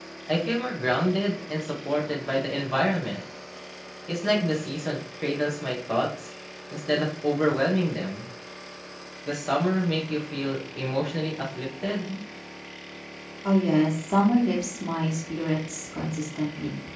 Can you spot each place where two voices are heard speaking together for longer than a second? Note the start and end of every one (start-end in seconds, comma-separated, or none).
none